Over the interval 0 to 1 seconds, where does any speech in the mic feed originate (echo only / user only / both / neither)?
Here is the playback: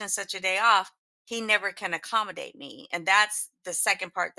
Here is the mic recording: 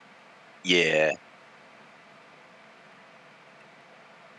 user only